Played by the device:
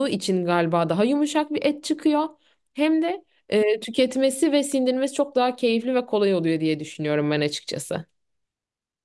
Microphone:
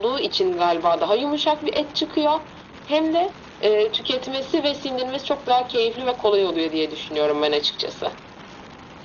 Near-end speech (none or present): none